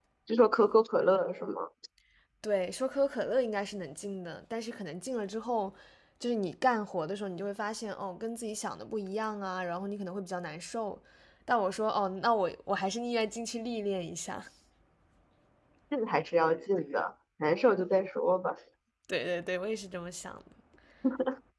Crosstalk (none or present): none